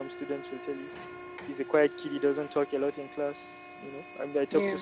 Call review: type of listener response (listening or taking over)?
listening